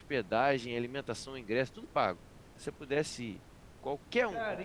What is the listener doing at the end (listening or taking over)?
taking over